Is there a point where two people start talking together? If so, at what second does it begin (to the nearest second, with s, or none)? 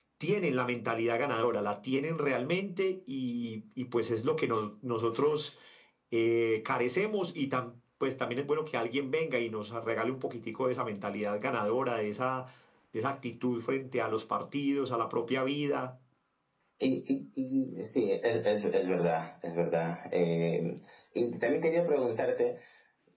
none